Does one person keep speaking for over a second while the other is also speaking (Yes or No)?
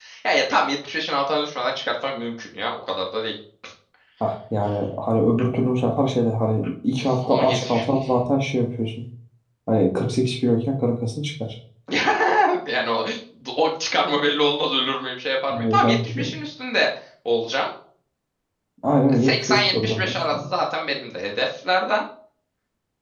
Yes